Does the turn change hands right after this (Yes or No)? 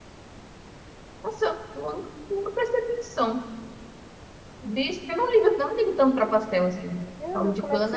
Yes